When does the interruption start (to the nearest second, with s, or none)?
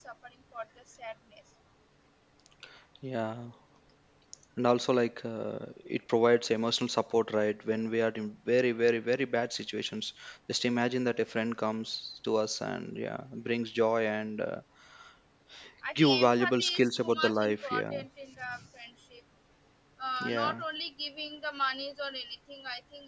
16 s